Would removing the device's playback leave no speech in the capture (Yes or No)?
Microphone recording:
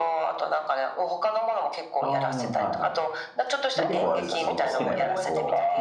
No